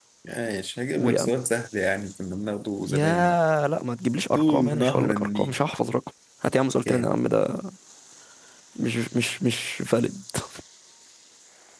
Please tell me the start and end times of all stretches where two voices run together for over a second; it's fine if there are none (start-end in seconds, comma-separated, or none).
4.3-5.5